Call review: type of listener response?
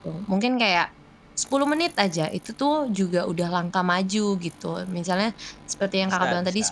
listening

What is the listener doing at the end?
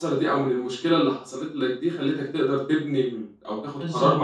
listening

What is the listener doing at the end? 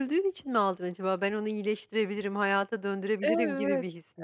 taking over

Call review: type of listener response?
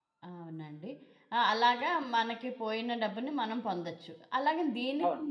listening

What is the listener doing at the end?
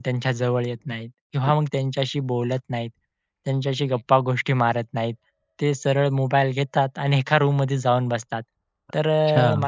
listening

